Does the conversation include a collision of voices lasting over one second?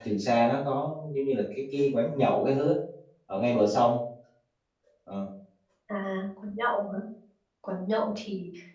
No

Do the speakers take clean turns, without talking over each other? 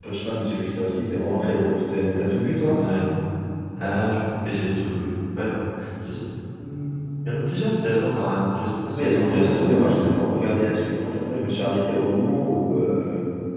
No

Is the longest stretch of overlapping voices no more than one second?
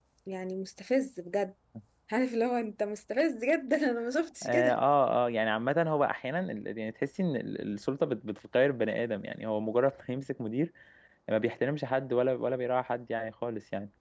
Yes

